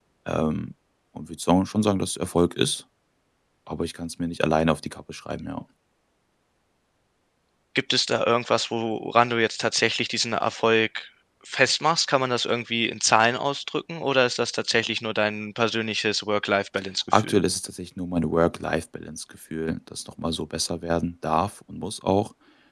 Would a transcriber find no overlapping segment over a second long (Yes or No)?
Yes